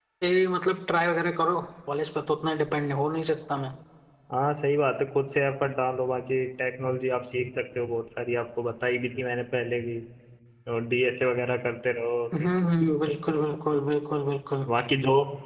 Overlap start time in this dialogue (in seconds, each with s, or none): none